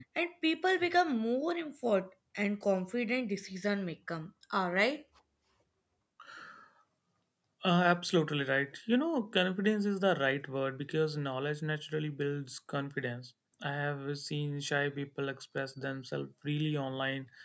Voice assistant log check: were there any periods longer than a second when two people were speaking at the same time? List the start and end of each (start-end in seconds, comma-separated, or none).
none